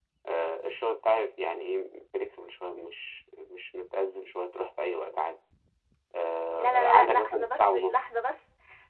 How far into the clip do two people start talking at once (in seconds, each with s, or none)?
6.6 s